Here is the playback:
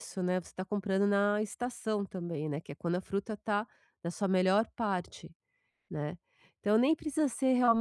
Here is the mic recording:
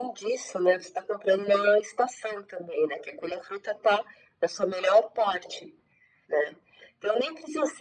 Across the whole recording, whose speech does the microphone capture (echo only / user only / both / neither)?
echo only